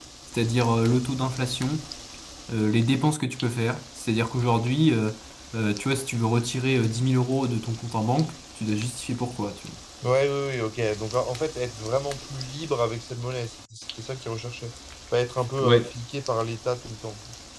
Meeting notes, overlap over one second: none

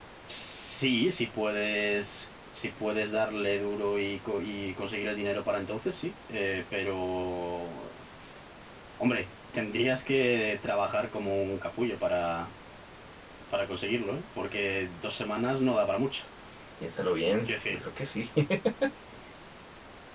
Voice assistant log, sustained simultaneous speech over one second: none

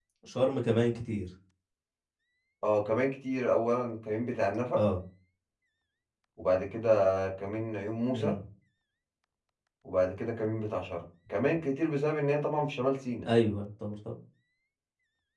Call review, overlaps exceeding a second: none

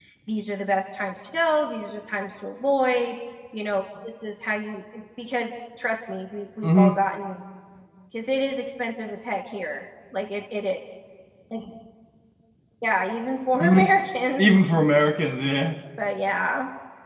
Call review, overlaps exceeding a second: none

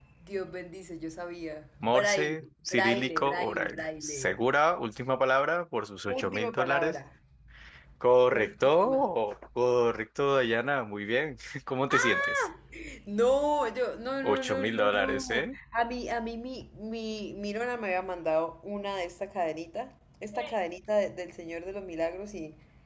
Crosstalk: present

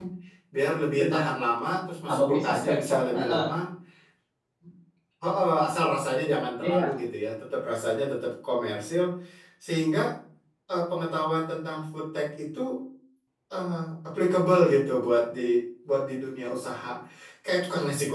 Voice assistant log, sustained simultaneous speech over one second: present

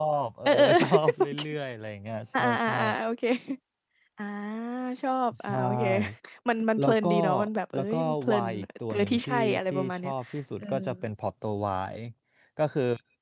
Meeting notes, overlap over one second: present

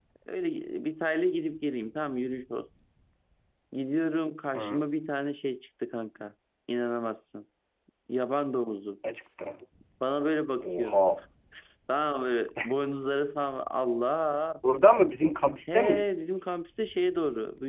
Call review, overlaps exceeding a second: none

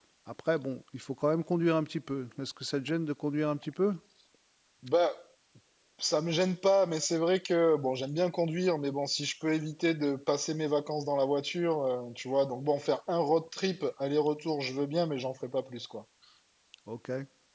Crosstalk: none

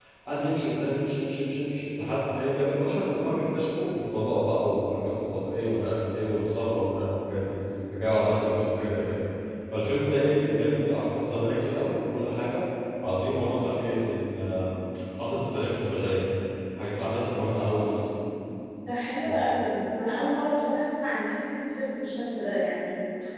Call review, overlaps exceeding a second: none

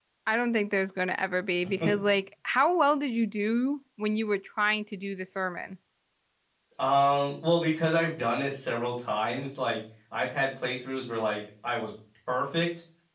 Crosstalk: none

